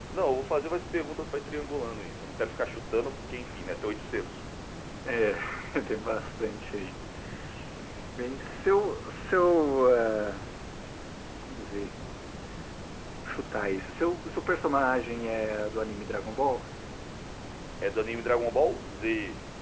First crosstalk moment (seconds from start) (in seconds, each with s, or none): none